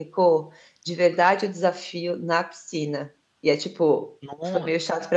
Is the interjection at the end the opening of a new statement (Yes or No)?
No